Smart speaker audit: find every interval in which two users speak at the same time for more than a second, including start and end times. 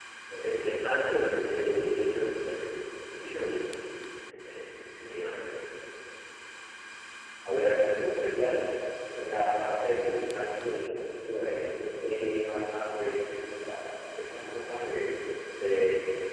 none

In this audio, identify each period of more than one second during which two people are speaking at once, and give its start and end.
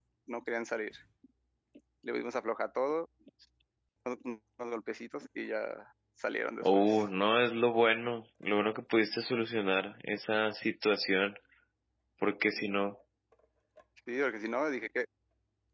none

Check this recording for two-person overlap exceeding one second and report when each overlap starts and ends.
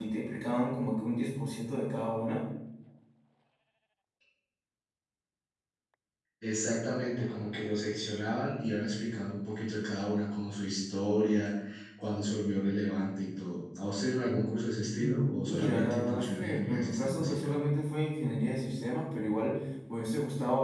15.0-17.5

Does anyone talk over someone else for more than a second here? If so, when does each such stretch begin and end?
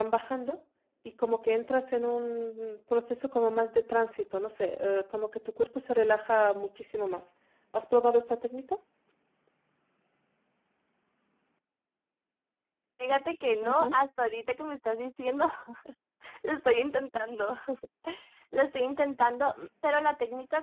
none

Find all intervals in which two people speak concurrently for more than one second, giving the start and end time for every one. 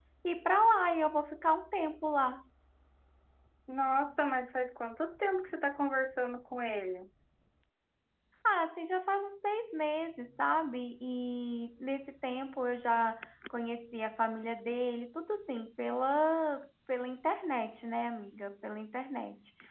none

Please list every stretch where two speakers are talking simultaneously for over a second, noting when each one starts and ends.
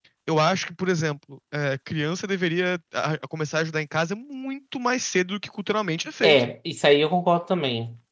none

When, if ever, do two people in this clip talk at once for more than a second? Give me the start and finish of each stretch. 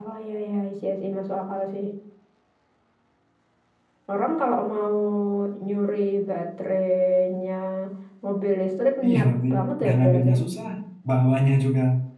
9.0-10.3

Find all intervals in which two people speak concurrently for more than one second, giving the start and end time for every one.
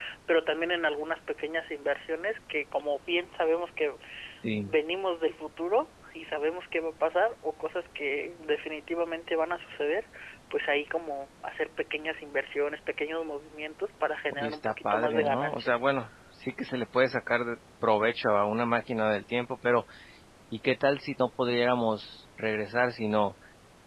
14.3-15.7

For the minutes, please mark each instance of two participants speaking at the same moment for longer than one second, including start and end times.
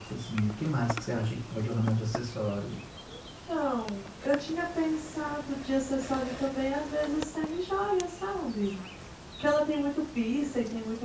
none

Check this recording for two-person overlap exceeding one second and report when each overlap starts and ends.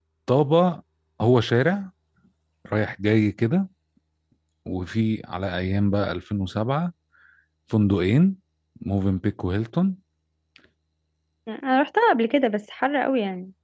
none

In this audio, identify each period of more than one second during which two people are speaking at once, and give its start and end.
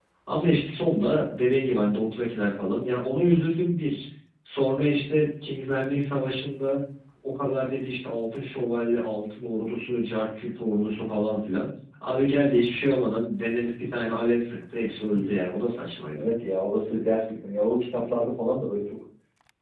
none

